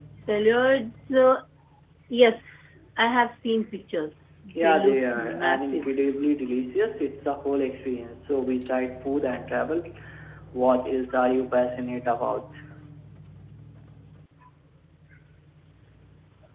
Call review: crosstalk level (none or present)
present